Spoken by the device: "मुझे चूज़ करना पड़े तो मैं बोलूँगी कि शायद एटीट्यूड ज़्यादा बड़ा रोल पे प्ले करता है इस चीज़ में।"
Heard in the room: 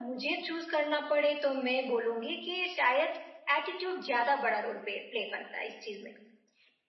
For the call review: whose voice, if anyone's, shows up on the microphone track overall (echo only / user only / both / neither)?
echo only